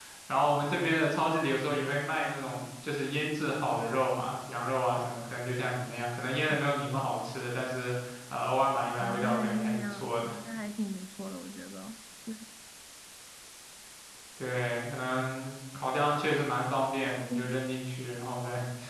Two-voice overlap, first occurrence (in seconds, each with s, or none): 9.0 s